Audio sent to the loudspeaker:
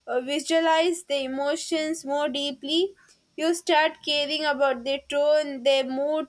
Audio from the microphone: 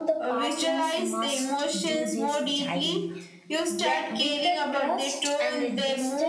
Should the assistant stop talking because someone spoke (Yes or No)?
Yes